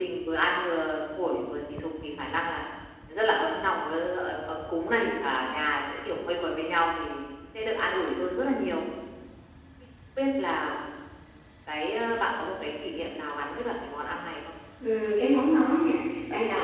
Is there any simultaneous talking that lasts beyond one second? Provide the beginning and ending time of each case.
none

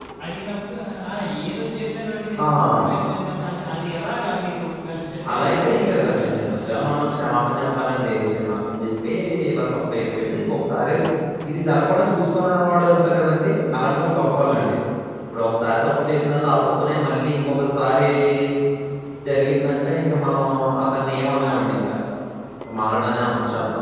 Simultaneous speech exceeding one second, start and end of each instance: 5.3-6.7

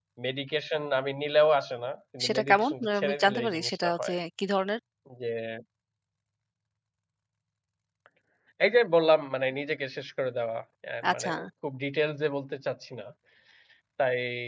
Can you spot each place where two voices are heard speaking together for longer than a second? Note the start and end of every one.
2.2-4.2

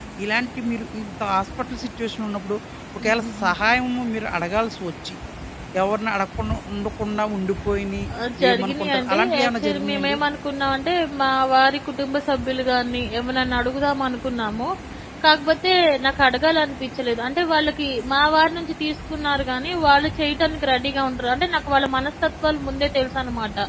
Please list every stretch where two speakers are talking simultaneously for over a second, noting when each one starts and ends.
8.5-10.2

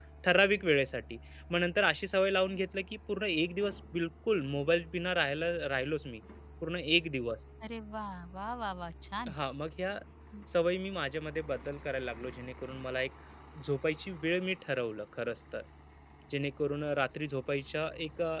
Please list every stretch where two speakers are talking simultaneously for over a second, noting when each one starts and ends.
none

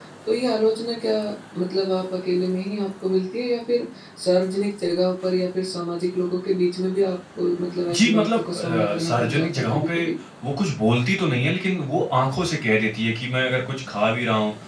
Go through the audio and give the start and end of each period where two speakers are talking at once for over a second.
7.9-10.0

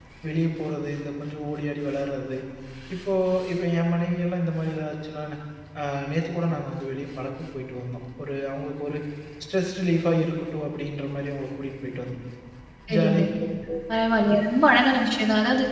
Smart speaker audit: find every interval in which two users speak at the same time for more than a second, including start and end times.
none

